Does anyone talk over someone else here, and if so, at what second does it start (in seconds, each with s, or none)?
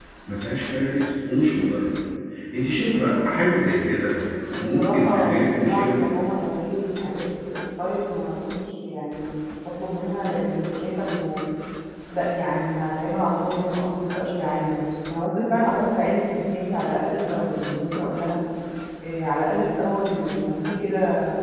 4.5 s